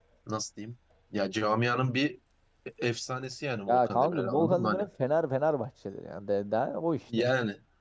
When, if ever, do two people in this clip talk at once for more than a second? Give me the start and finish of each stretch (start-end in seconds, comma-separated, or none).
3.7-4.9